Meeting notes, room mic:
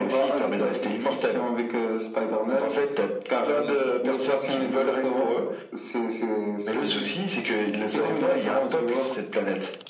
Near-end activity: none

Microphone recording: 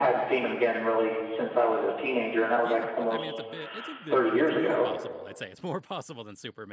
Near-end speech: present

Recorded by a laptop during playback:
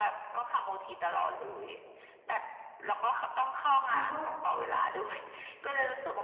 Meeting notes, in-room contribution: present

